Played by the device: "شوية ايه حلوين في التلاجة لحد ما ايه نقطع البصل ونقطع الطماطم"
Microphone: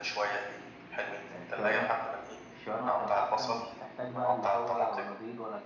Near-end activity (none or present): present